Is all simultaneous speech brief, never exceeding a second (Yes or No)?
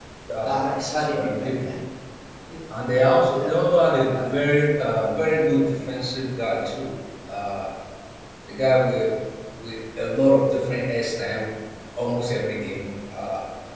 No